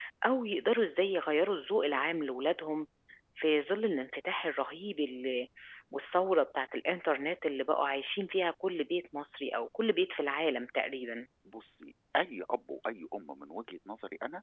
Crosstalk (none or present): none